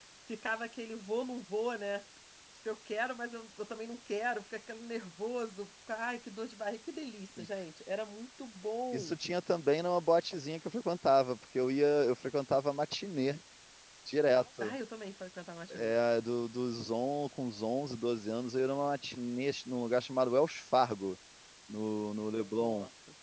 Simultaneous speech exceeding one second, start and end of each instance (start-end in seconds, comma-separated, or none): none